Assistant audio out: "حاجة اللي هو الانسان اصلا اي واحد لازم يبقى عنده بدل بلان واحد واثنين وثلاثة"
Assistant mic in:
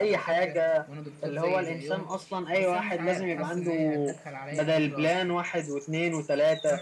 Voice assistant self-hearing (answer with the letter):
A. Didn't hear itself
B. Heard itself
B